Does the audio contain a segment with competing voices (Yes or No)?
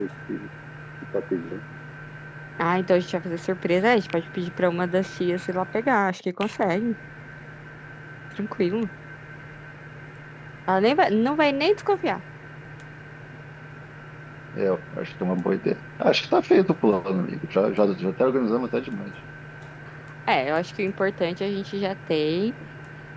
No